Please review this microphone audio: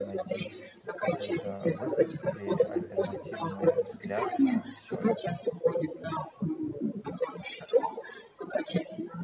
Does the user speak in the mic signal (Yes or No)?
Yes